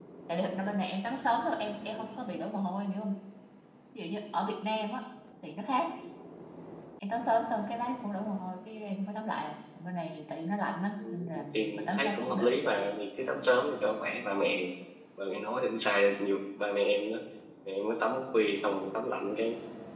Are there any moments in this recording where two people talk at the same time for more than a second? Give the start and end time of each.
11.1-12.5

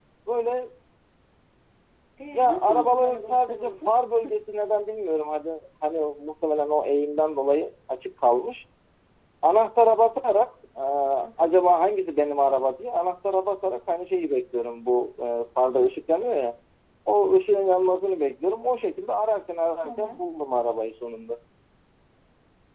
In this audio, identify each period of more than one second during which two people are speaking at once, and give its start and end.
2.3-3.9

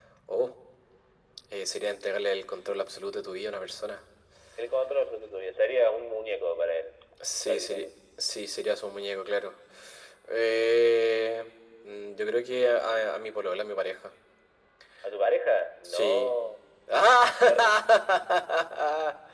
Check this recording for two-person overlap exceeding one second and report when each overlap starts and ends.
none

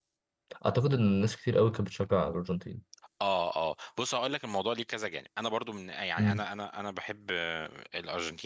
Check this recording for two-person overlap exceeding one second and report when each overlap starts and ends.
none

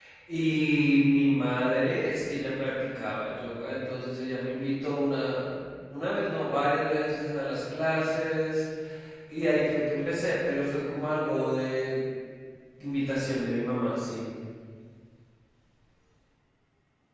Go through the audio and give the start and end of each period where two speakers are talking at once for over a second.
none

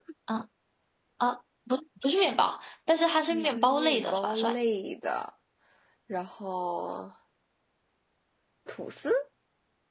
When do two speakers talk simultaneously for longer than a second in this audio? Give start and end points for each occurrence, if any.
3.3-4.5

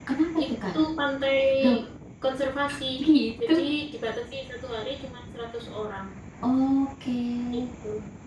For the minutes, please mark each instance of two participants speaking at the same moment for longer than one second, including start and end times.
none

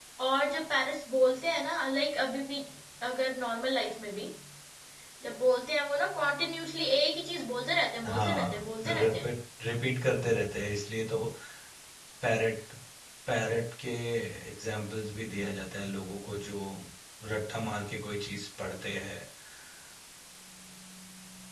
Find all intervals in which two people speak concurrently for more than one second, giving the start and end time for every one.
8.1-9.3

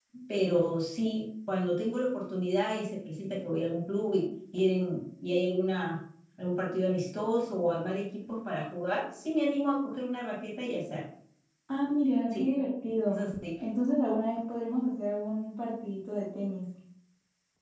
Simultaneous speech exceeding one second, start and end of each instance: none

